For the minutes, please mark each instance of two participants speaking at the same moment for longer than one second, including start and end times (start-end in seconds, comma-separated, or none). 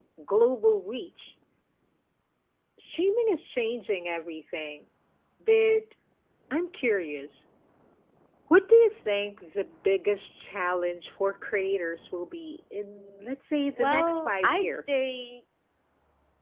13.8-15.0